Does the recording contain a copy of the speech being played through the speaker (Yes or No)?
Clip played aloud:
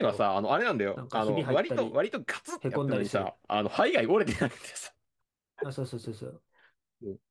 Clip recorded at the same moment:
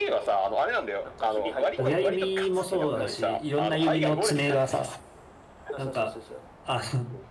Yes